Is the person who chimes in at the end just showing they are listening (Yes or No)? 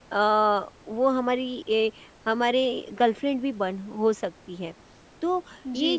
No